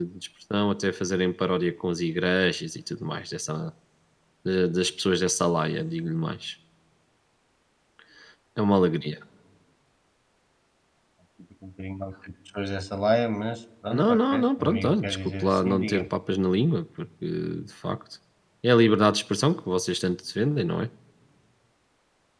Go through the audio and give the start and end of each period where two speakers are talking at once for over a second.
13.9-16.1

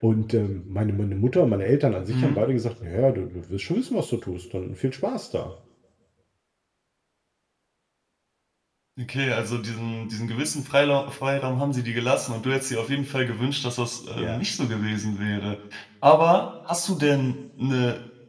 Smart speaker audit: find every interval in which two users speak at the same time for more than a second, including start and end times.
none

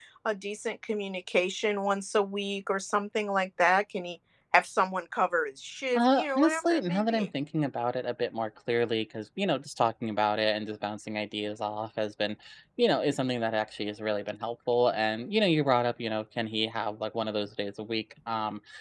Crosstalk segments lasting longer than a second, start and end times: 6.0-7.3

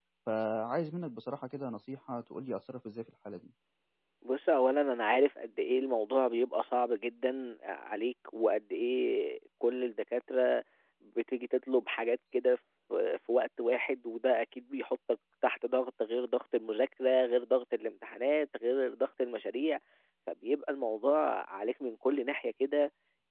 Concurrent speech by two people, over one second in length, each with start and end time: none

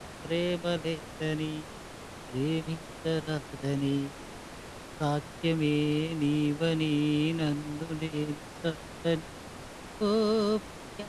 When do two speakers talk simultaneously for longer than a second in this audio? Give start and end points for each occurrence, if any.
none

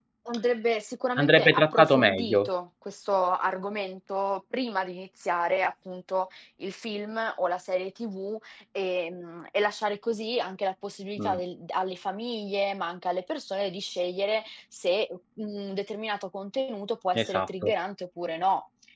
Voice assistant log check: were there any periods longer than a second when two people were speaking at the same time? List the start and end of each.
1.2-2.5

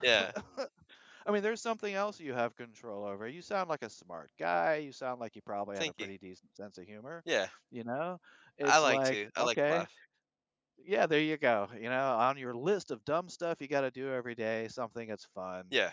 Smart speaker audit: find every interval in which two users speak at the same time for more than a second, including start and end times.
8.6-9.8

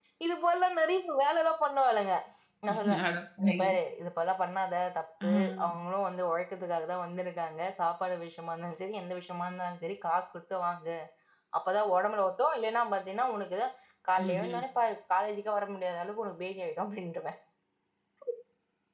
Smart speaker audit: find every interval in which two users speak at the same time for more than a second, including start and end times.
none

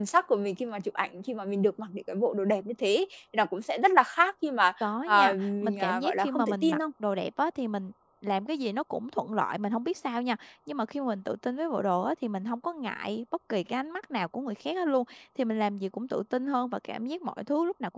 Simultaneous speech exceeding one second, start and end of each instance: 5.1-6.8

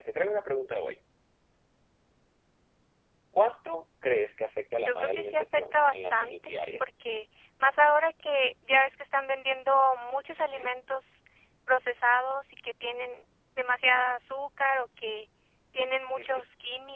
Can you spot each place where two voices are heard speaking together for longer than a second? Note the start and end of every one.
4.8-6.8

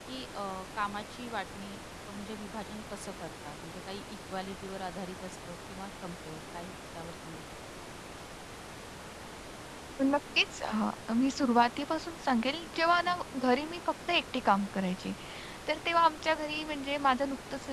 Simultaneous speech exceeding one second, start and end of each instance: none

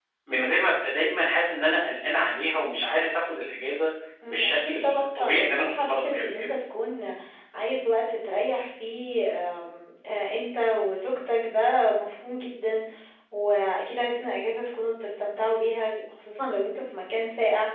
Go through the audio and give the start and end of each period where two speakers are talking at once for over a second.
4.3-6.5

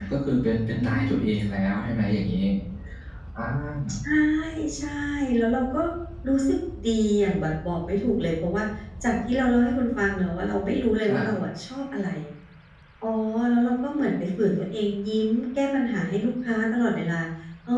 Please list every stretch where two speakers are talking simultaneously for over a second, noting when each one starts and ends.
none

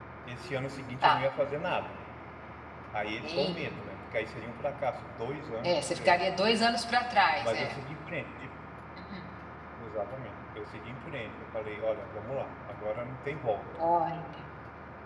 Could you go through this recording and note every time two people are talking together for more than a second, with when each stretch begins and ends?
none

